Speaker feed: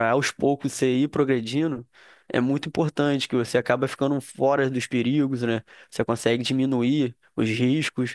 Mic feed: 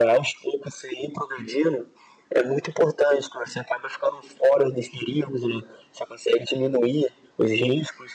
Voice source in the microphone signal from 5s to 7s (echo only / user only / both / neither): echo only